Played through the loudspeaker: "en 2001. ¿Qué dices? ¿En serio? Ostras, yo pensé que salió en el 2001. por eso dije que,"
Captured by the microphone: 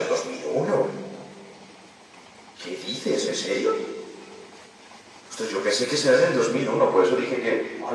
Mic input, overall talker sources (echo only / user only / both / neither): echo only